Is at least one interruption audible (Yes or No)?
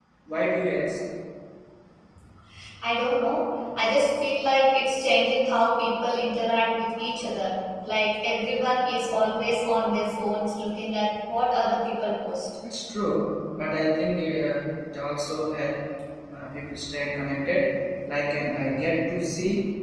No